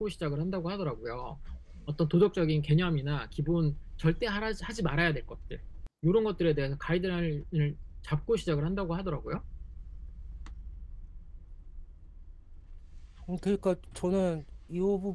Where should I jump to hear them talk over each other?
none

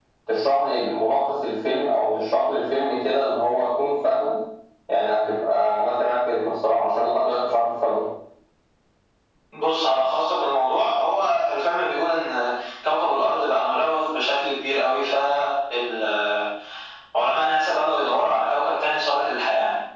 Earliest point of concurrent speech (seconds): none

